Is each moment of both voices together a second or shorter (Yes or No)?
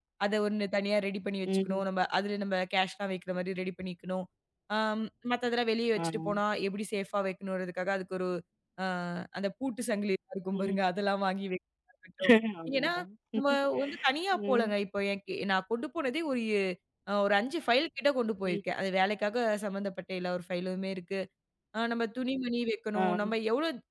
Yes